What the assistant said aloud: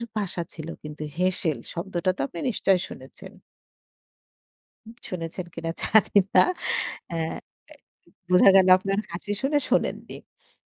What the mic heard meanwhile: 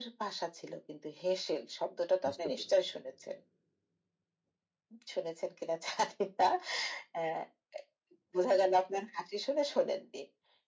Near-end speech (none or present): present